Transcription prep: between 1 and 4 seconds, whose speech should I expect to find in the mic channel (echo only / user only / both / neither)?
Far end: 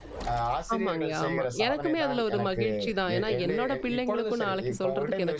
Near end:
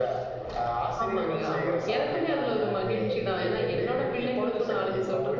echo only